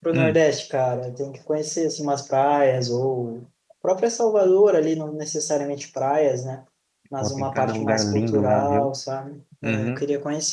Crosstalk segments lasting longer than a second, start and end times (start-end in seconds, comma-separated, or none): 7.2-8.9